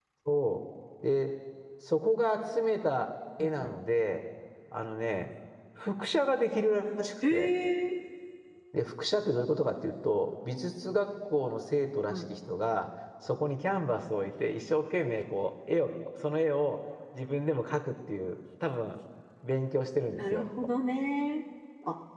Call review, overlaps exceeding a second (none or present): none